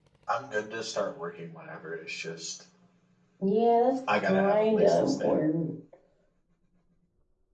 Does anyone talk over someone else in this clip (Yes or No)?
Yes